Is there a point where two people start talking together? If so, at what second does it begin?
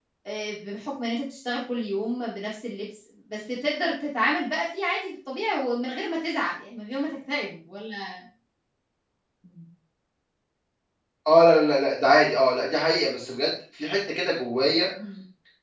none

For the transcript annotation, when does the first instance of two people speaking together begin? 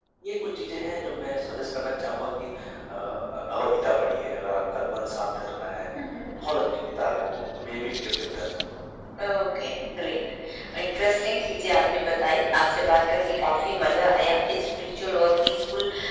none

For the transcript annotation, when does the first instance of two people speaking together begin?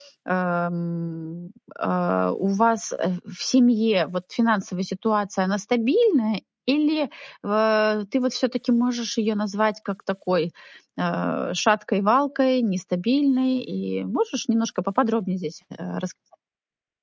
none

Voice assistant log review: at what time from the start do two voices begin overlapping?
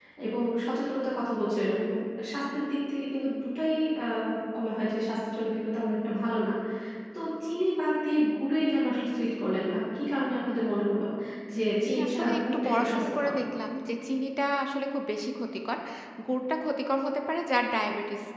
11.8 s

